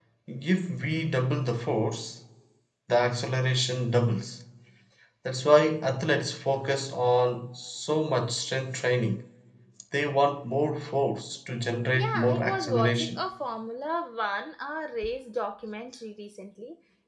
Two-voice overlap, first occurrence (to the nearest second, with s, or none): 12 s